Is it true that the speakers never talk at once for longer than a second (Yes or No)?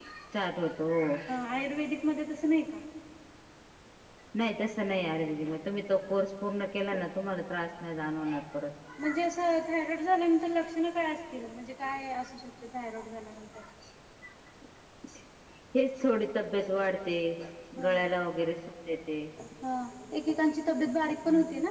Yes